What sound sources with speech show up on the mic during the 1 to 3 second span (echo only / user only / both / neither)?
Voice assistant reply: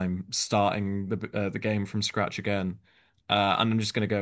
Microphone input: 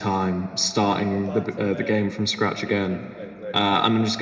both